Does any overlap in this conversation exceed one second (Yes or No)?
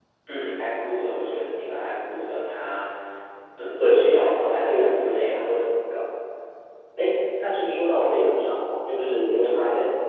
Yes